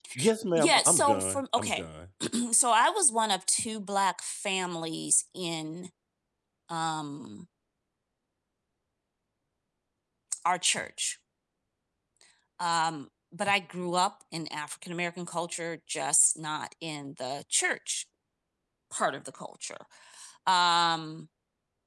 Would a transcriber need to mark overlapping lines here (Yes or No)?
Yes